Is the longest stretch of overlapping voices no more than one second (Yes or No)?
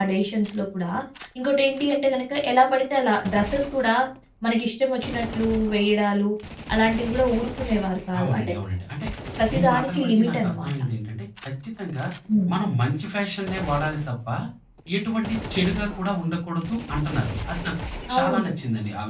No